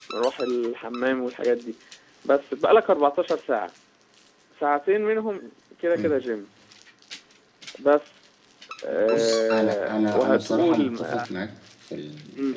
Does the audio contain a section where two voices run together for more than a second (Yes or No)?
Yes